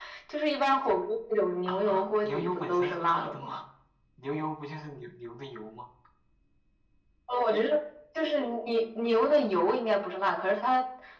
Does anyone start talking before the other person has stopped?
Yes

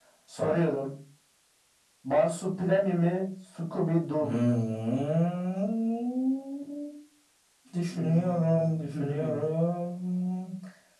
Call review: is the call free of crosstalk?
No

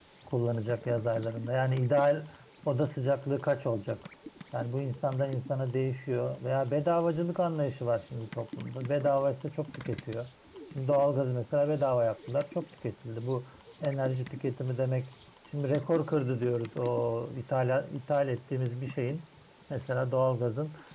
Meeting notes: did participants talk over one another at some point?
No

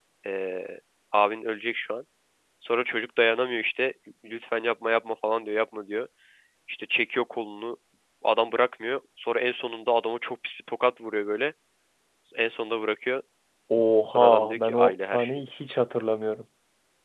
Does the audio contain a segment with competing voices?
Yes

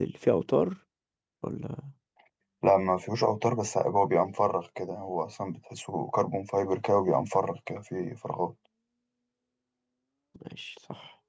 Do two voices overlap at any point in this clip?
No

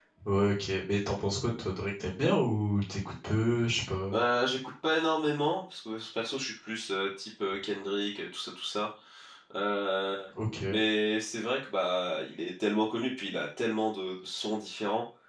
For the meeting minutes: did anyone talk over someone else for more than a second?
No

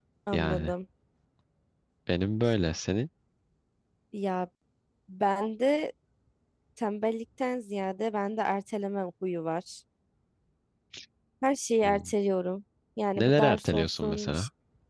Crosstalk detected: Yes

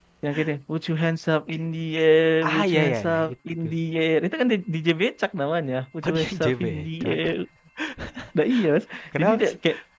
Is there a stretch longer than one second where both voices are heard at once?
Yes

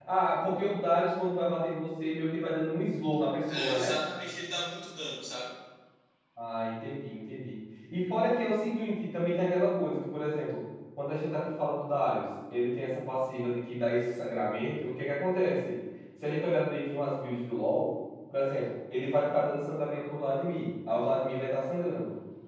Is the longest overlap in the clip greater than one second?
No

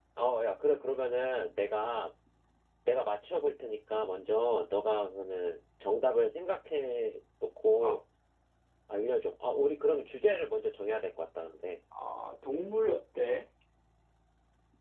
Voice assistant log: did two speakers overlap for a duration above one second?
No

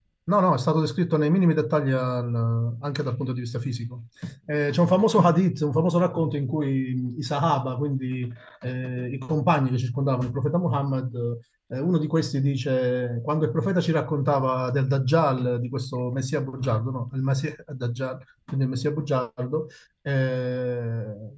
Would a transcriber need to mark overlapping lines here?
No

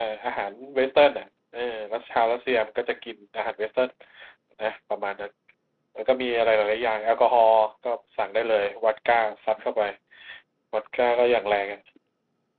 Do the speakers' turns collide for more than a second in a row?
No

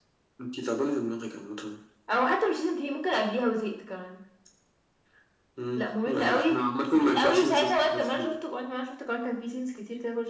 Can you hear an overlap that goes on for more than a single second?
Yes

